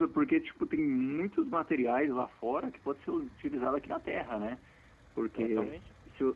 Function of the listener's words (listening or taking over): listening